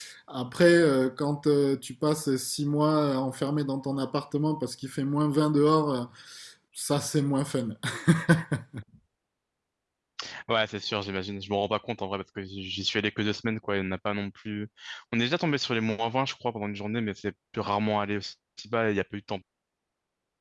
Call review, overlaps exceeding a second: none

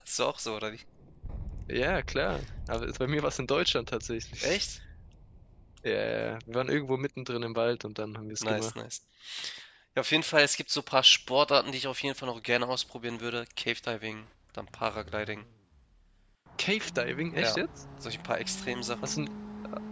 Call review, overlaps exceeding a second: none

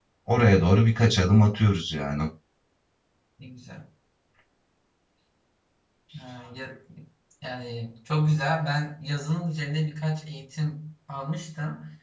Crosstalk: none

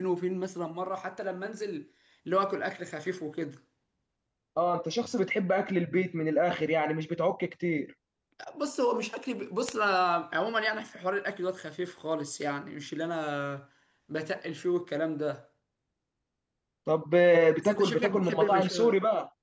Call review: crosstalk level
present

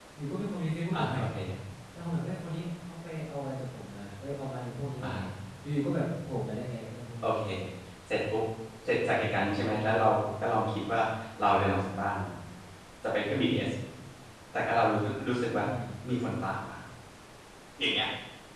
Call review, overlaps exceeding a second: none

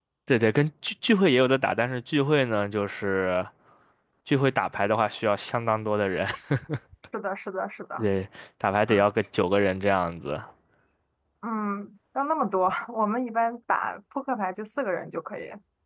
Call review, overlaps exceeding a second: none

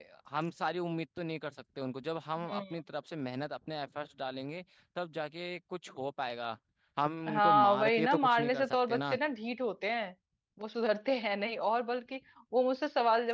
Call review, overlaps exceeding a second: present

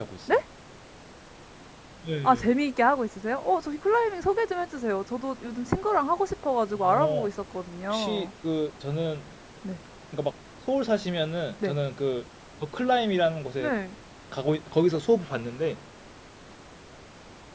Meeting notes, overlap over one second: none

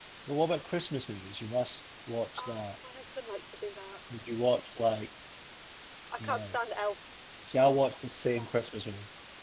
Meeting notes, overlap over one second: none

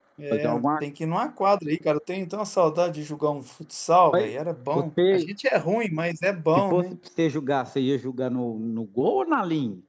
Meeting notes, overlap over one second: none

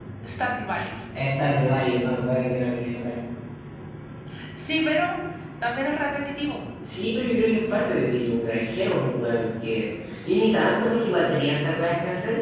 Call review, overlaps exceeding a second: none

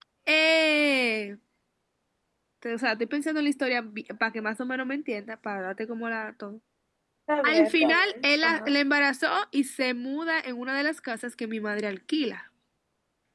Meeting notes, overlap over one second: present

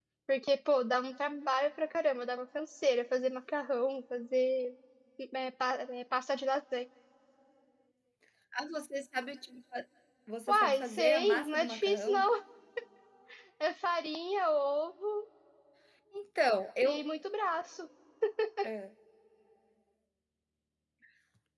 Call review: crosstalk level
present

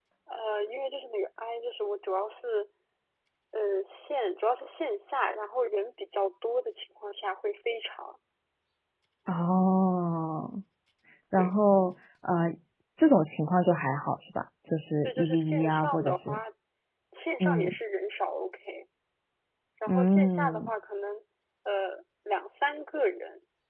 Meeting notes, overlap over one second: present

